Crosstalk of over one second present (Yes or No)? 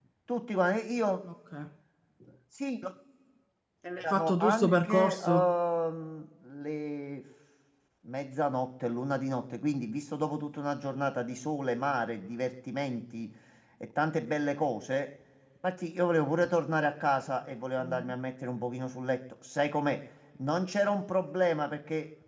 Yes